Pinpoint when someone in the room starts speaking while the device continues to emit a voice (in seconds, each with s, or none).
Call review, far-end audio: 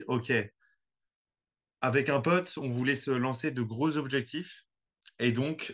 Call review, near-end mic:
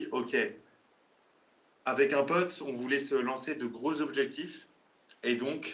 none